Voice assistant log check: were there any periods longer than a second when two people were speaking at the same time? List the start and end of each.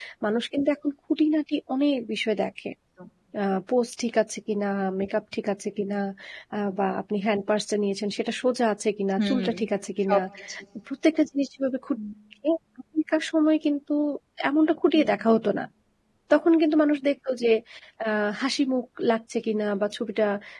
none

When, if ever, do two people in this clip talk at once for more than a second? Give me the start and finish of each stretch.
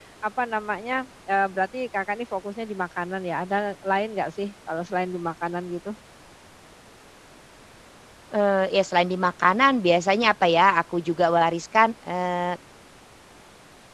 none

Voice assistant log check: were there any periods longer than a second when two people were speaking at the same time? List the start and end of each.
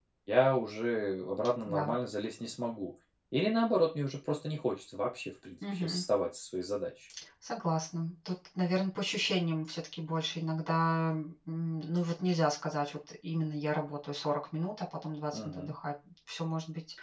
none

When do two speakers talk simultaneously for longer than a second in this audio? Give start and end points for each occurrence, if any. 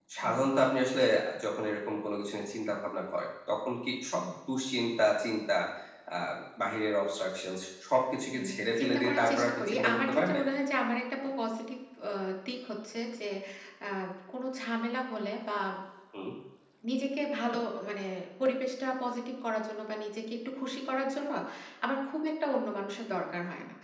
8.3-10.4

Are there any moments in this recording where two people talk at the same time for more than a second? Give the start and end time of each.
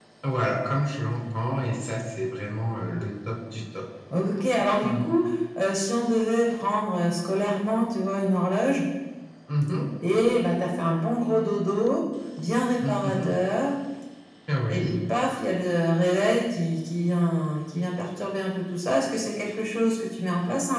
none

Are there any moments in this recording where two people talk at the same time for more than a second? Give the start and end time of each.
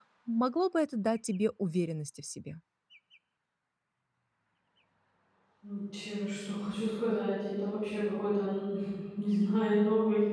none

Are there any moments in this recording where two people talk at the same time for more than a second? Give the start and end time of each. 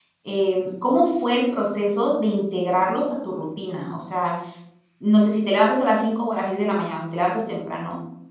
none

